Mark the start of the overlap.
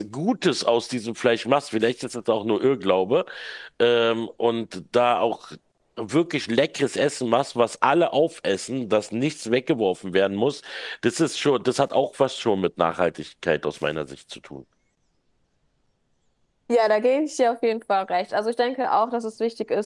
none

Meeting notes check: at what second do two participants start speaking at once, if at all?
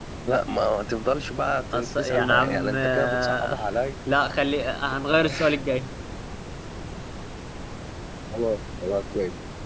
1.7 s

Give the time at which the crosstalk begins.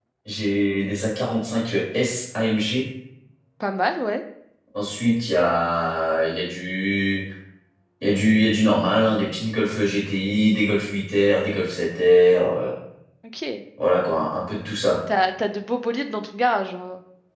none

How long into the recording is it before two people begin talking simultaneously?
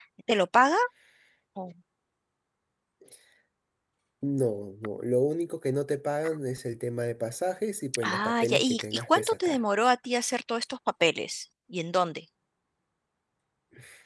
8.0 s

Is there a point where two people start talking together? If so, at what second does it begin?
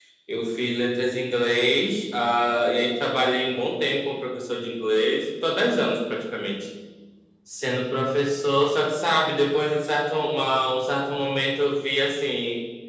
none

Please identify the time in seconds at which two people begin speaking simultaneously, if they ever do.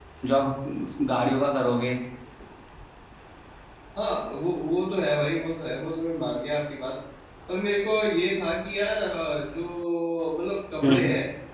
none

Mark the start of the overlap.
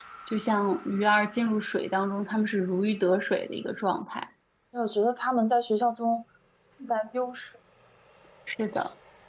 none

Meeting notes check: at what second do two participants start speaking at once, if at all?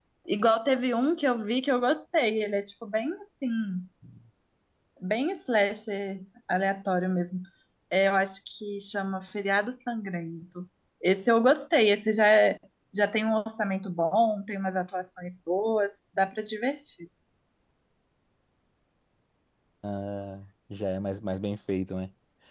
none

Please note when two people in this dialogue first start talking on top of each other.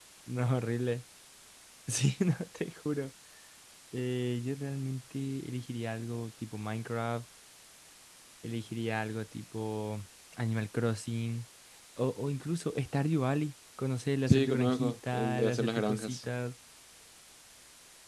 14.3 s

